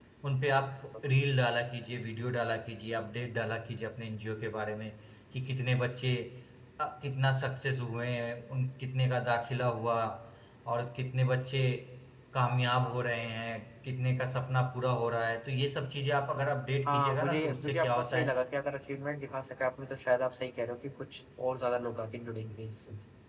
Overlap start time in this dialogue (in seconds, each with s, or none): 16.9 s